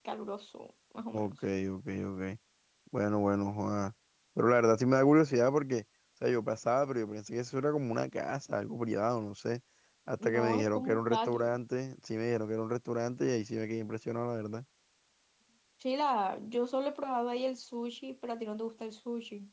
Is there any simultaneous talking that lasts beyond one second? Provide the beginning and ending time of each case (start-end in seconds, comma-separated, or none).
10.2-11.6